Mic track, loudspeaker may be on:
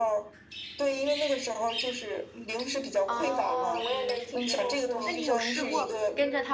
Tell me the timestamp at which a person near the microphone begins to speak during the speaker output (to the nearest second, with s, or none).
3 s